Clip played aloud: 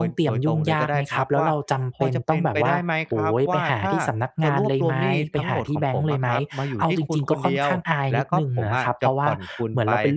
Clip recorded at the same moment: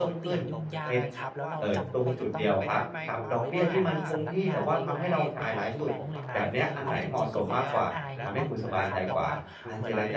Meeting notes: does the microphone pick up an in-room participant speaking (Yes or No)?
Yes